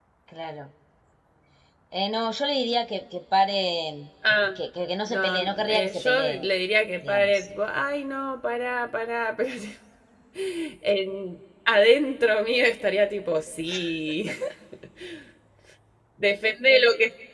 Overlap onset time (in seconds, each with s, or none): 5.1 s